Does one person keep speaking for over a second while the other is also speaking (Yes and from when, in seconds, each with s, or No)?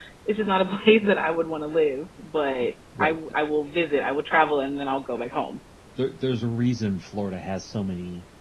No